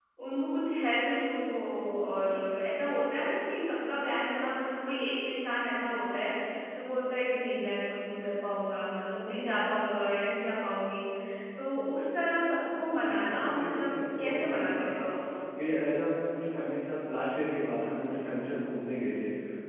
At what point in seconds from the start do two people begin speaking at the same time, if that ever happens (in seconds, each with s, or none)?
12.9 s